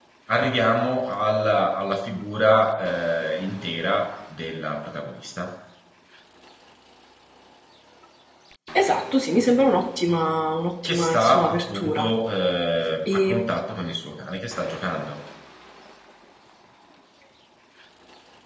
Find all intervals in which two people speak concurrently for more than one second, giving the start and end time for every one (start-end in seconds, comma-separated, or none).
10.8-12.1